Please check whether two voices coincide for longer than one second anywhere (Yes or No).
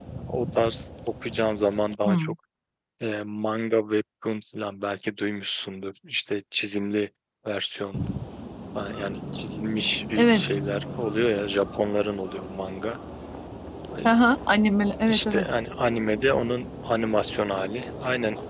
No